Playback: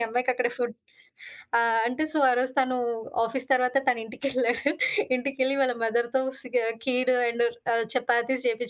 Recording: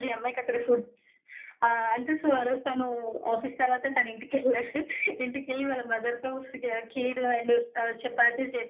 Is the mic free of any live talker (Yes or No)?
Yes